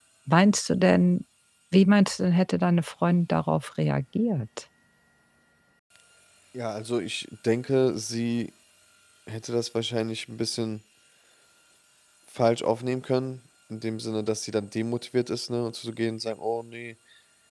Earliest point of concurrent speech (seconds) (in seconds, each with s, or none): none